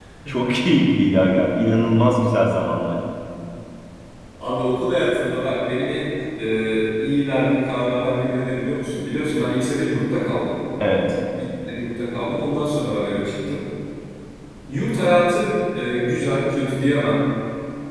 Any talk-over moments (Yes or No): No